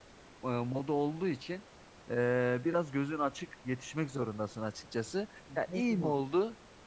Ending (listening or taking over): listening